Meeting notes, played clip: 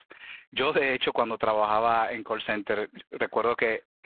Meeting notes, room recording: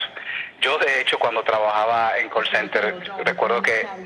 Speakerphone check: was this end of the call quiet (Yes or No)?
No